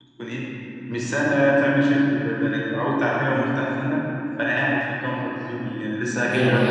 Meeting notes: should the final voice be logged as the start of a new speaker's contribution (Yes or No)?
Yes